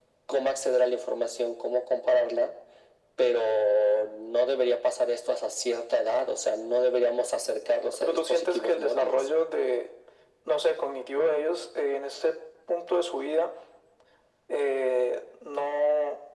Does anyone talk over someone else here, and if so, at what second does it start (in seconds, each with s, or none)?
8.0 s